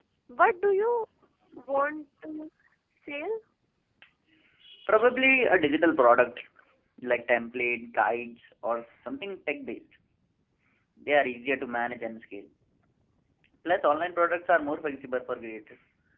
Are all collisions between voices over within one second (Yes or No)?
Yes